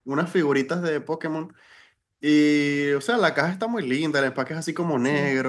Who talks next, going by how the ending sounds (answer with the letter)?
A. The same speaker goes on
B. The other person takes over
A